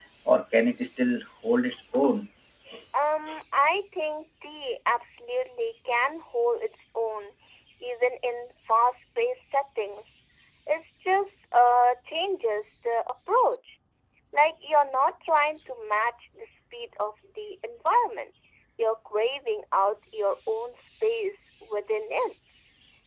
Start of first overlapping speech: none

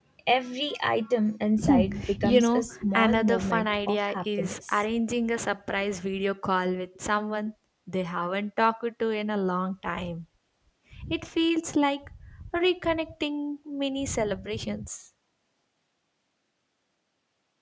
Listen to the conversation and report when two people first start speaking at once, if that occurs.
1.6 s

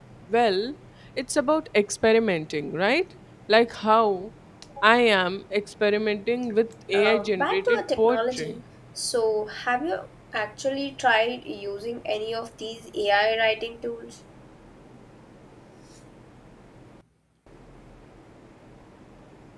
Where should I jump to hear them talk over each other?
6.9 s

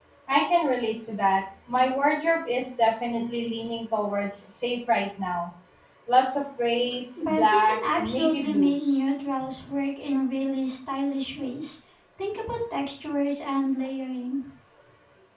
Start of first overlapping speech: 7.2 s

